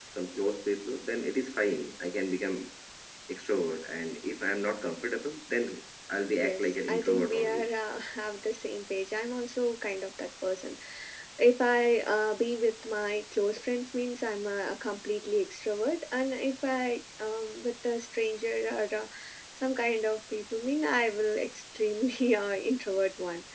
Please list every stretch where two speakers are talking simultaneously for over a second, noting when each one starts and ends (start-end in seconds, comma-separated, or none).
6.4-7.7